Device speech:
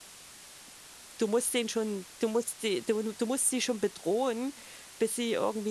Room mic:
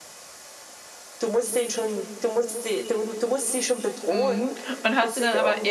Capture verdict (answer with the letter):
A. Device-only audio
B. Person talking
B